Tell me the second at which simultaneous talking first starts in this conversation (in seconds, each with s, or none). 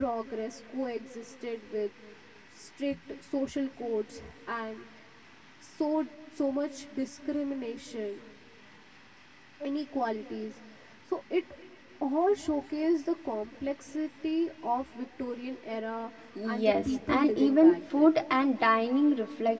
16.4 s